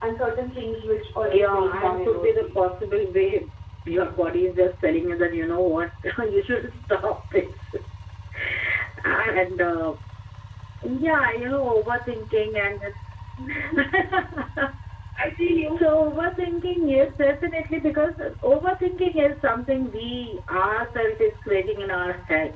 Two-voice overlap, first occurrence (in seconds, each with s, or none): 1.3 s